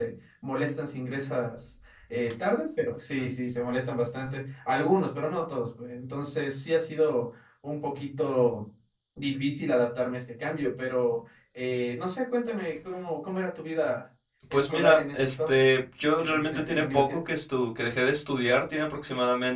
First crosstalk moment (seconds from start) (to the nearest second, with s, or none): 15 s